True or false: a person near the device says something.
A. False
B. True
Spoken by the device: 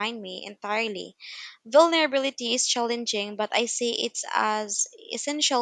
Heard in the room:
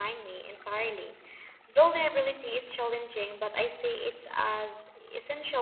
A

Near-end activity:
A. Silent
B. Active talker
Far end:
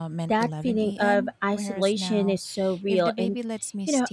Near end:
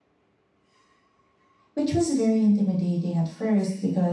B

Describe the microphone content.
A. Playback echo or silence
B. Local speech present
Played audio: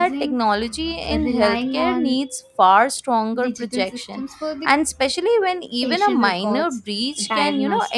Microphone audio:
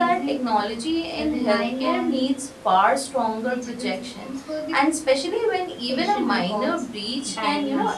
A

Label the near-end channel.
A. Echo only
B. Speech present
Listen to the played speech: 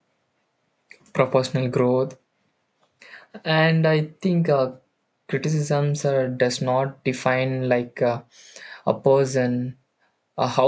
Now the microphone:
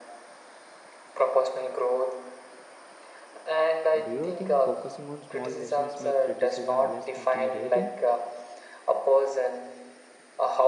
B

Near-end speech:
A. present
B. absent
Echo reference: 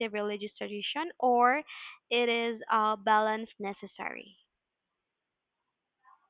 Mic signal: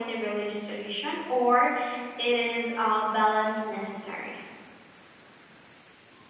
B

